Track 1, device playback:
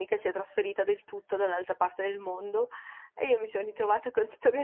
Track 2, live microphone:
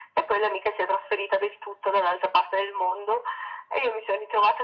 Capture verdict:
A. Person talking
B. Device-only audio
B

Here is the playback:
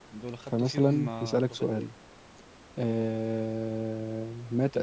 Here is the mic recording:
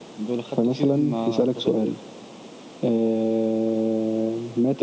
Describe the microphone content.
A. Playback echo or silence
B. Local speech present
A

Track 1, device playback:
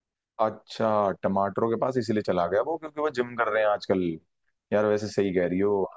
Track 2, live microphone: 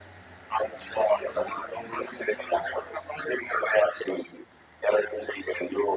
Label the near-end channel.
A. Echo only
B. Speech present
A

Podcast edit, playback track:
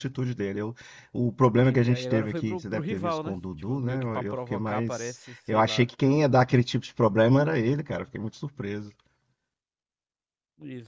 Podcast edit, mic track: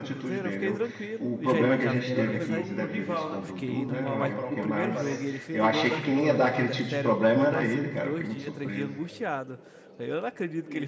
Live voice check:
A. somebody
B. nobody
A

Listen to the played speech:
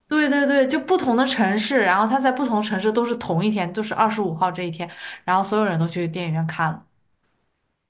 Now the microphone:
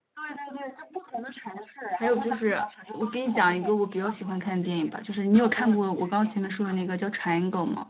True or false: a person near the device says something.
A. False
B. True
B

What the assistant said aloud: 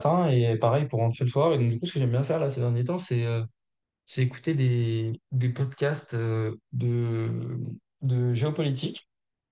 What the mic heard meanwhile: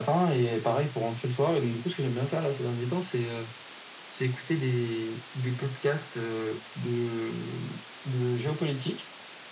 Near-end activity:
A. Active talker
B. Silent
B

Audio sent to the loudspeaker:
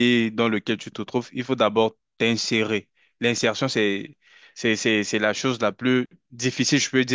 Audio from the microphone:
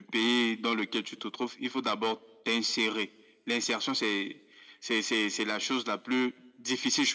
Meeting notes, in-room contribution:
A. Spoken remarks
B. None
B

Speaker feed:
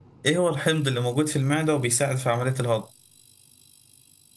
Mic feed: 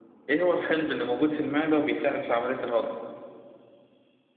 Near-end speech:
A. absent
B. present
A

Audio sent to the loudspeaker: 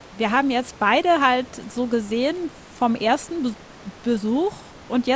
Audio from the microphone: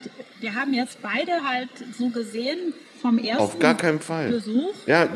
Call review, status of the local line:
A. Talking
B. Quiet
A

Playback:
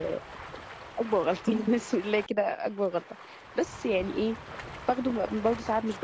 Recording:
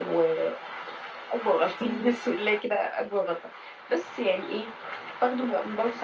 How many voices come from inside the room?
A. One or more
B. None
B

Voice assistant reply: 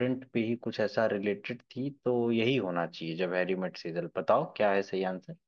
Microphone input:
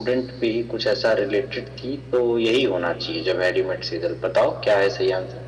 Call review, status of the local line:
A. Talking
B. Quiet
B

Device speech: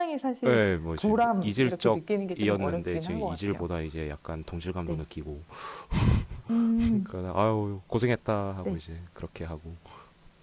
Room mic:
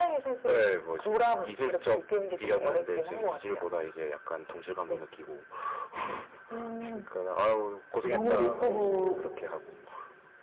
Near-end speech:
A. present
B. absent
A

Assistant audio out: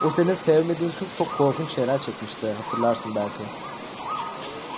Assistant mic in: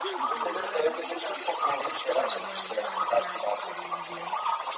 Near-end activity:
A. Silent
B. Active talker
B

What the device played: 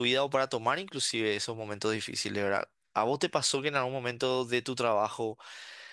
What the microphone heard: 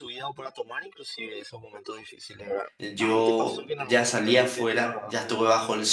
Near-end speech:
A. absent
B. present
B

